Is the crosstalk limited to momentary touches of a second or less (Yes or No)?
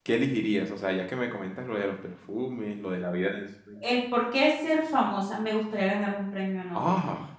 Yes